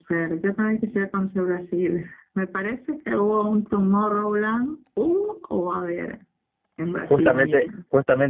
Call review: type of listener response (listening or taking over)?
taking over